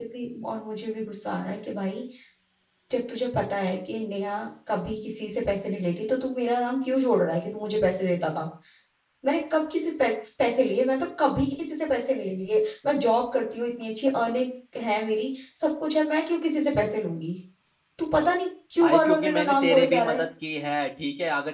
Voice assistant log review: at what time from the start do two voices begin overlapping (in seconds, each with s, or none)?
18.8 s